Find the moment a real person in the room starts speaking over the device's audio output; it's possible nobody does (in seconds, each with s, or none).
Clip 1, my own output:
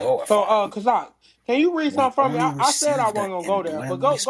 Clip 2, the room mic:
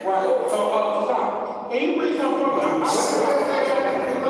2.5 s